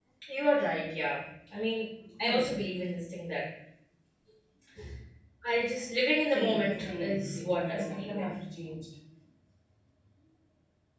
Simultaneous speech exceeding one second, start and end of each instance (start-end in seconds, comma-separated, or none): 6.3-8.3